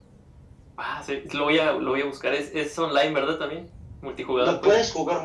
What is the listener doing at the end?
taking over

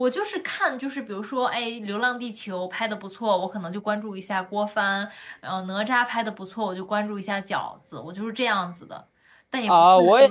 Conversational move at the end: taking over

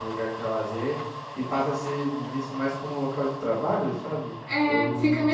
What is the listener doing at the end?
taking over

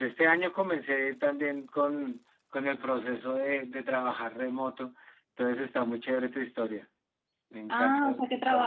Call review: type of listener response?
taking over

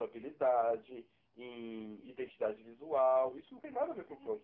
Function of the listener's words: taking over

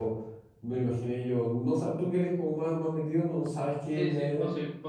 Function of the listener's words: taking over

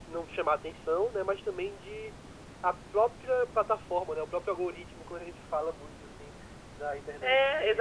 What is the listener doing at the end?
taking over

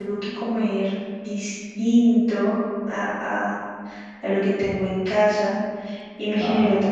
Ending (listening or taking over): listening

